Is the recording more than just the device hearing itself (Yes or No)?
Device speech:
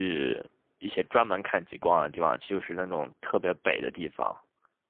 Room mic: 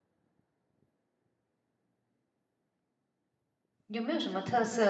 Yes